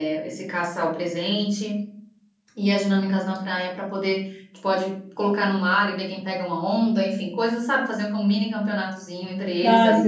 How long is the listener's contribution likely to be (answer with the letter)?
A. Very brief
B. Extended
B